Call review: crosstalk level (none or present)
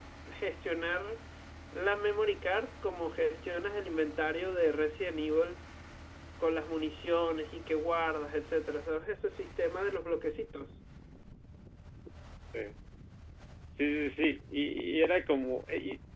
none